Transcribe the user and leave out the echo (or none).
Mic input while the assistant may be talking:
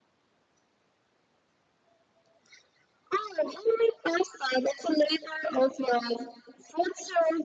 none